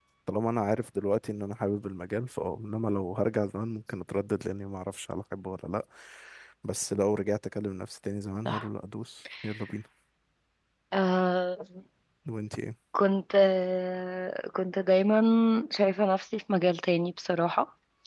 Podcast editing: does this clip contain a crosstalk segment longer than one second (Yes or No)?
No